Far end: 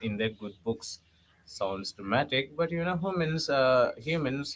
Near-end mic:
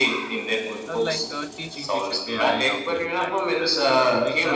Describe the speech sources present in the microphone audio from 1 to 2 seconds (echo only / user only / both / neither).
both